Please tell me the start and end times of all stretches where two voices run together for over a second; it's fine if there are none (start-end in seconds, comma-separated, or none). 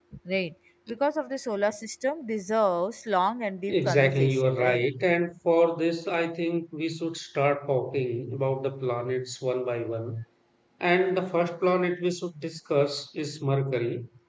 3.7-4.9